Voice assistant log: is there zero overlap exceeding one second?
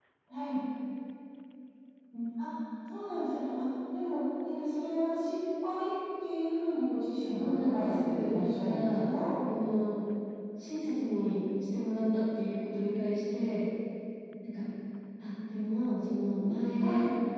No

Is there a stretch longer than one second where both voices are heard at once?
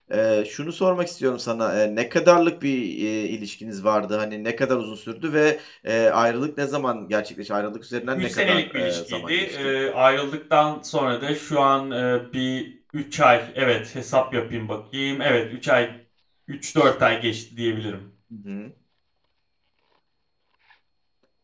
Yes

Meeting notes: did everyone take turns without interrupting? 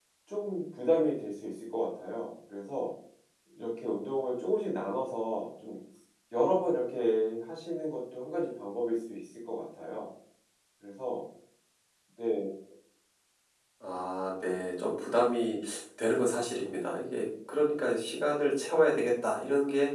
Yes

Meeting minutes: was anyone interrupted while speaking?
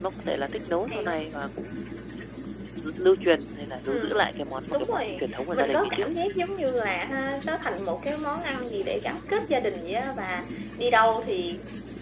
Yes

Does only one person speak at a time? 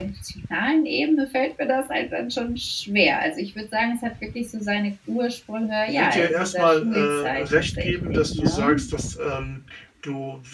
No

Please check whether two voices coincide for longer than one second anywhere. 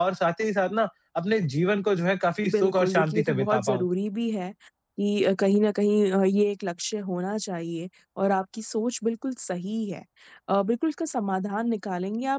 Yes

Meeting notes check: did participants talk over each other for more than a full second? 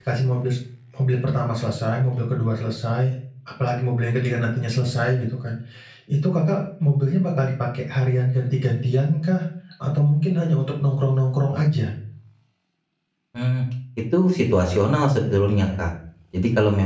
No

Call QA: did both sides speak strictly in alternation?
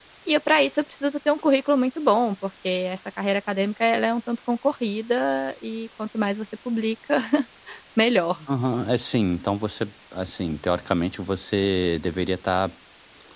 Yes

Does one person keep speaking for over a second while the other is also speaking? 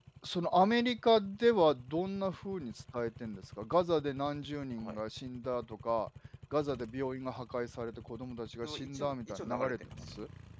Yes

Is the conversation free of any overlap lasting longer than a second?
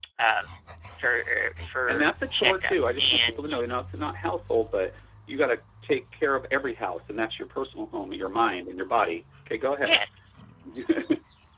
No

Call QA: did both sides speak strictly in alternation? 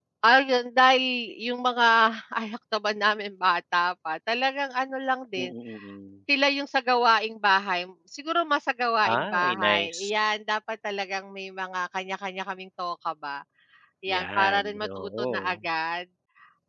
No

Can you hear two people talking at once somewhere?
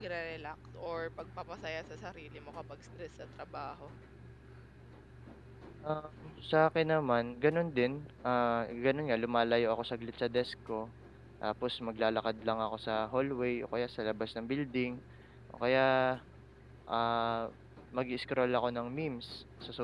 No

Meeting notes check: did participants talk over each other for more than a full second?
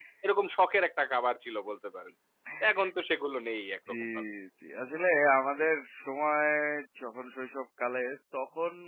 No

